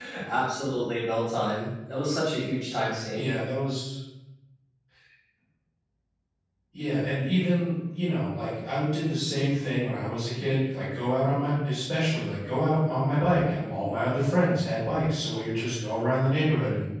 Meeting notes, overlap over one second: none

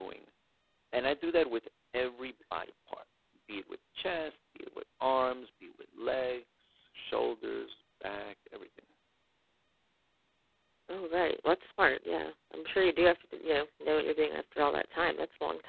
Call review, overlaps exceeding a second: none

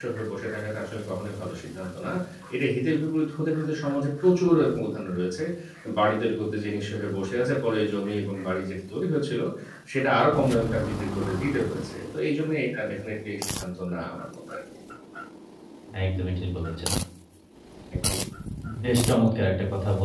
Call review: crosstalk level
none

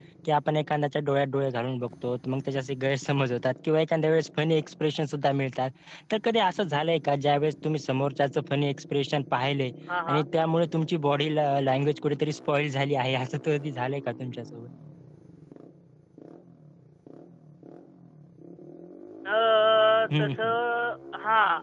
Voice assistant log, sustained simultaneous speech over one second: none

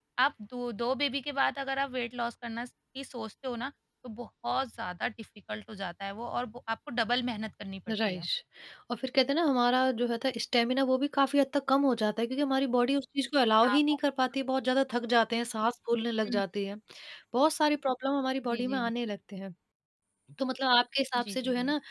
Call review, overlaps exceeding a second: none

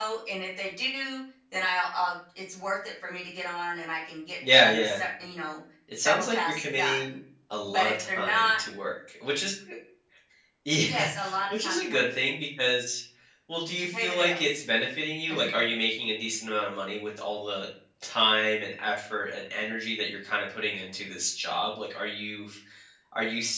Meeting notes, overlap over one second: present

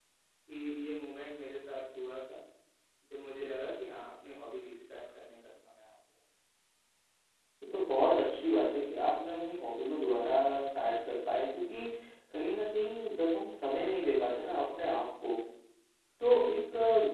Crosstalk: none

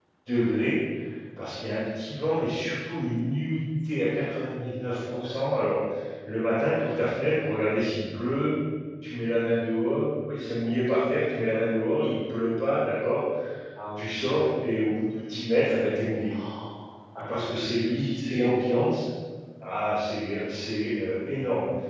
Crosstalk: present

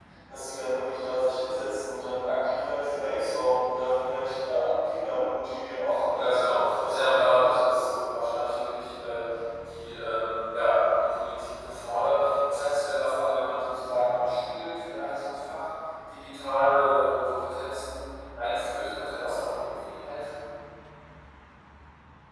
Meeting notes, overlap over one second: present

